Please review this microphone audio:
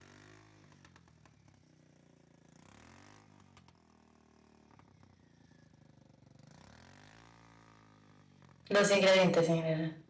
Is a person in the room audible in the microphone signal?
Yes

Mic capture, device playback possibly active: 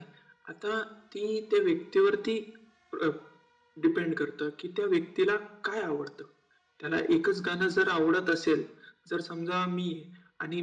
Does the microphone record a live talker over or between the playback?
No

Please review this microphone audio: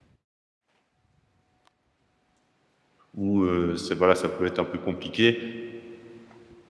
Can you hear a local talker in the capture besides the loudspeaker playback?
Yes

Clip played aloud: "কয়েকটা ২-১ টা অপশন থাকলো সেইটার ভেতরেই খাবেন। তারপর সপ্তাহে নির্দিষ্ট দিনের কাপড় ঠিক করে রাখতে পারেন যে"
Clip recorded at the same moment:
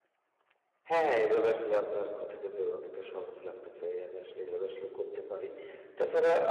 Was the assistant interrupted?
Yes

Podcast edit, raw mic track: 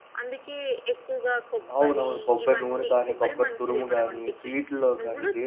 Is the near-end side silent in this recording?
No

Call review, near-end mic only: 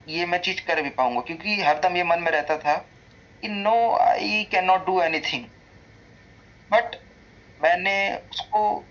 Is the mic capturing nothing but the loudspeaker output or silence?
Yes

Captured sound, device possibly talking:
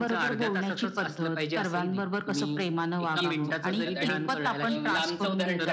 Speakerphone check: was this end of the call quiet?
No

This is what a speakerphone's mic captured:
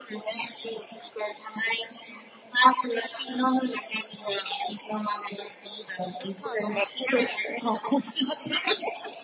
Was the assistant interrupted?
Yes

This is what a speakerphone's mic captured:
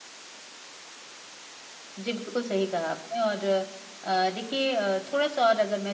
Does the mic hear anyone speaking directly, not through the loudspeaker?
Yes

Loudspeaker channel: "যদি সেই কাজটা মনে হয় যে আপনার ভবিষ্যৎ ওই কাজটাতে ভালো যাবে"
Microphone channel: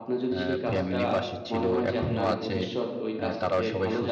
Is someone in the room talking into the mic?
Yes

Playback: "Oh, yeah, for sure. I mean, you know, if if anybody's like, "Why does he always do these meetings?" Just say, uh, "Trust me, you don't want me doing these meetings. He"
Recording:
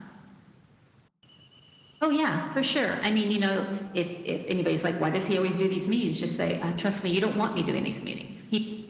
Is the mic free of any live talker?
Yes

